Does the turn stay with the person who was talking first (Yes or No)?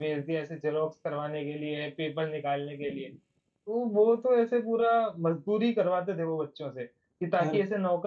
Yes